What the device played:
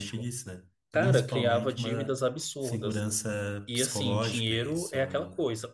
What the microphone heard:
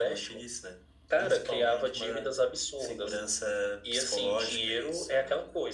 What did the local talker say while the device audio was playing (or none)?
none